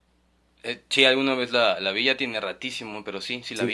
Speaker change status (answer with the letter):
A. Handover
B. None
A